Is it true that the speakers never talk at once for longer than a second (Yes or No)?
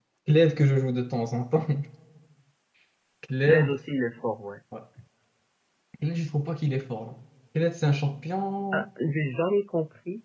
Yes